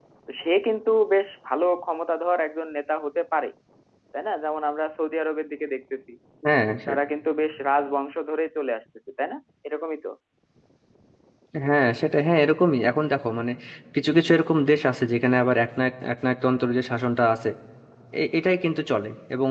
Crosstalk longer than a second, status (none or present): none